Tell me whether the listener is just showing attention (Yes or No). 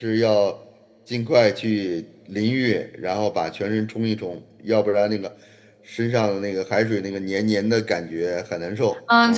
No